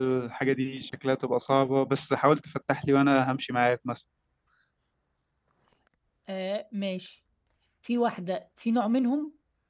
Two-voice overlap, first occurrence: none

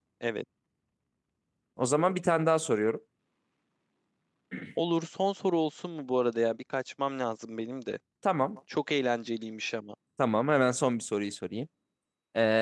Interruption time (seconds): none

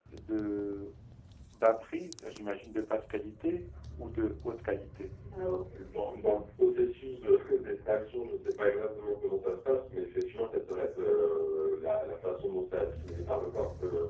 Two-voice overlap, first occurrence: none

